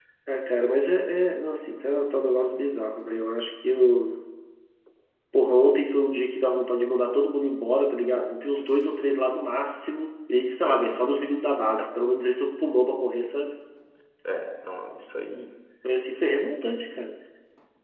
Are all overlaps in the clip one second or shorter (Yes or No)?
Yes